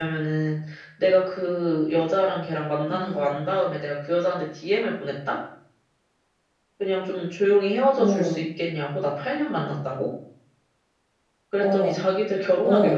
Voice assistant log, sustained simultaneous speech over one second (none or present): none